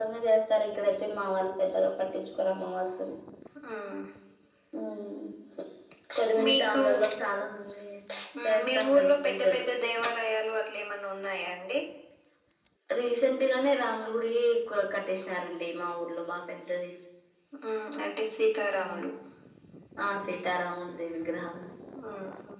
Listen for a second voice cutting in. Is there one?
Yes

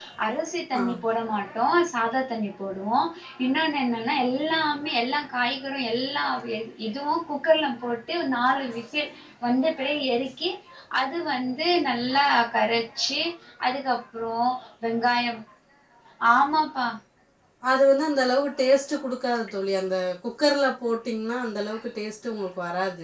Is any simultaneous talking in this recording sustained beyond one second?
No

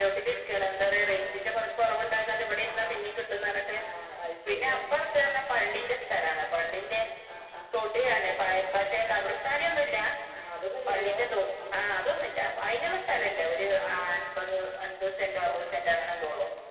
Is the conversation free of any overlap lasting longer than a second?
Yes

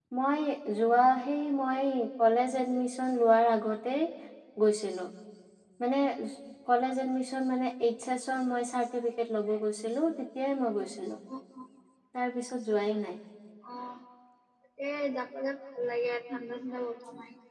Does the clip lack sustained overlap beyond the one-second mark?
Yes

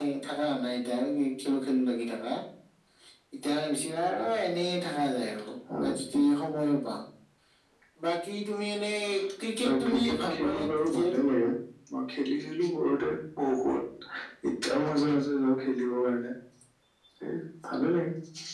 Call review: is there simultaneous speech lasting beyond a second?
Yes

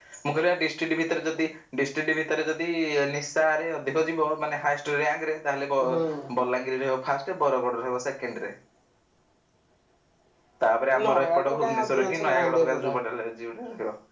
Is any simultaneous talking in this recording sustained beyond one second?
Yes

